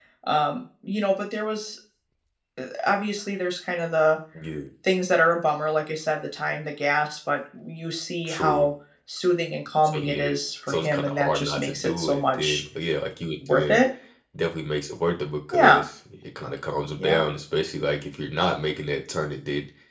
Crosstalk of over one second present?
Yes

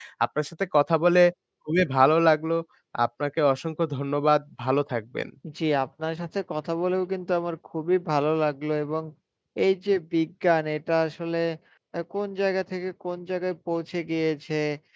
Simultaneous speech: No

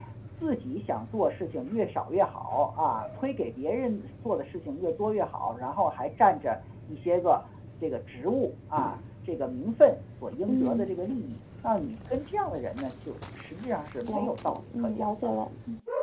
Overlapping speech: Yes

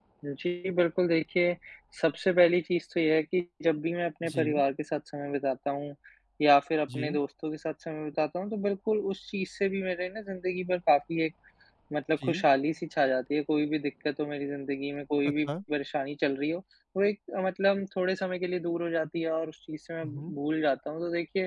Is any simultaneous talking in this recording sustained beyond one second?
No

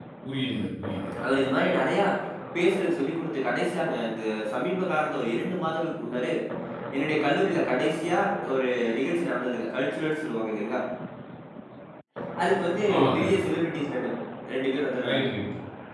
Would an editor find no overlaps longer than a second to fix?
Yes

